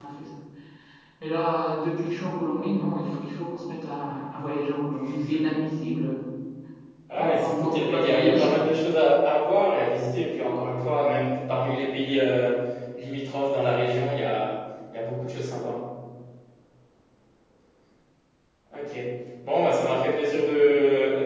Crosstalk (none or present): present